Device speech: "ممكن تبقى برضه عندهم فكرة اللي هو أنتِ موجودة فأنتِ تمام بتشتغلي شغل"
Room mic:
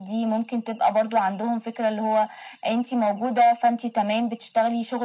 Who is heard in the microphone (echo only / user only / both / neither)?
echo only